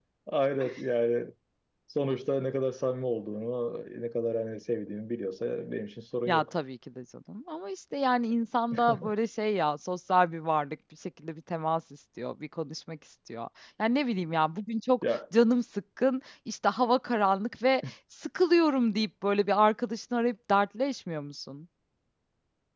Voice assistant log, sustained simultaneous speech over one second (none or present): none